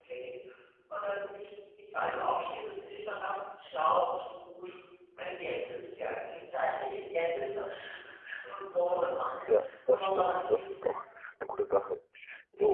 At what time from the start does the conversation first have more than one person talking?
9 s

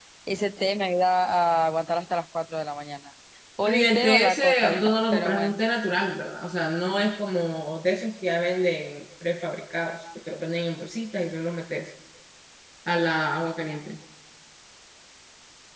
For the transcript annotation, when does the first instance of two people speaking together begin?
4 s

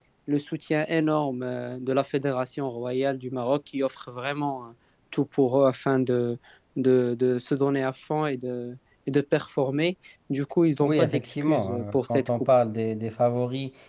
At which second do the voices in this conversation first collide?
11 s

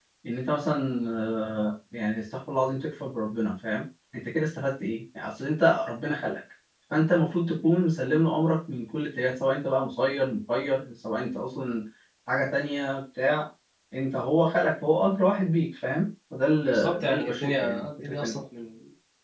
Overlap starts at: 17 s

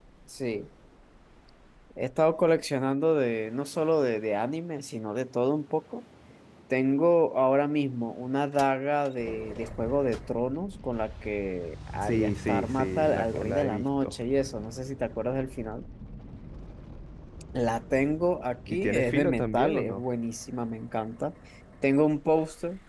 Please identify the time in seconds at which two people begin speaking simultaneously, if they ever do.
12 s

